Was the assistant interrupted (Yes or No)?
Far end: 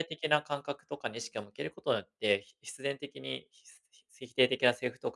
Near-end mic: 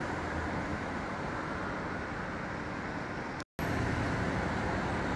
No